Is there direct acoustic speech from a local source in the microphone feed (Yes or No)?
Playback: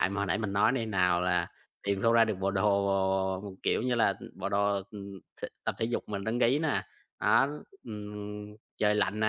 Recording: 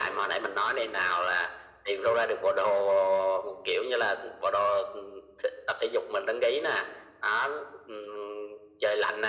No